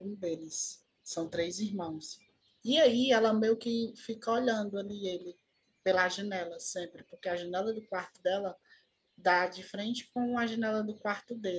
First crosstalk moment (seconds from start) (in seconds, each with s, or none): none